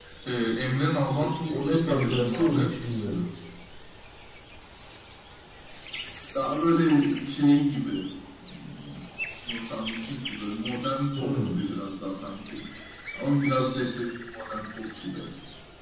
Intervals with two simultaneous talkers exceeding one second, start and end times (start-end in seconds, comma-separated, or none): 1.2-2.7